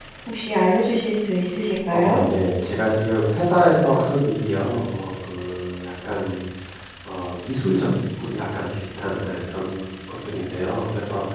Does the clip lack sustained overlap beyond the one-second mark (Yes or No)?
Yes